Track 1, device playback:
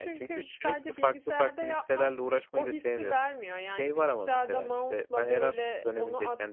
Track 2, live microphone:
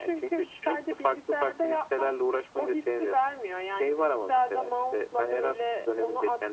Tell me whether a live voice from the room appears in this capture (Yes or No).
No